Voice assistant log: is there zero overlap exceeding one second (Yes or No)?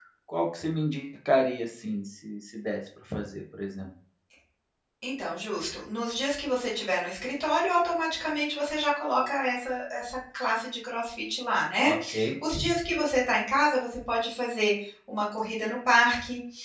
Yes